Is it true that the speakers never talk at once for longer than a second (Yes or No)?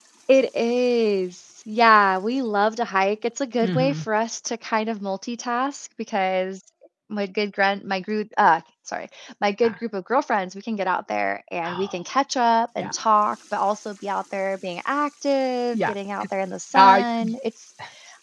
Yes